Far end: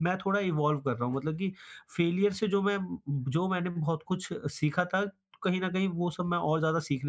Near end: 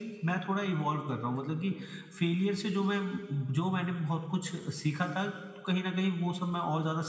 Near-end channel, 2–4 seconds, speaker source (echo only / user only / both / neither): echo only